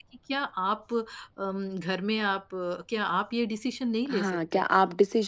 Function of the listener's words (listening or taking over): taking over